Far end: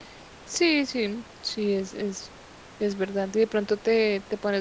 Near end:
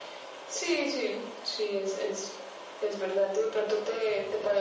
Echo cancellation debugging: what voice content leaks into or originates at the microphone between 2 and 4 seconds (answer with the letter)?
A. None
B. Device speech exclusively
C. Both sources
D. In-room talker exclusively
B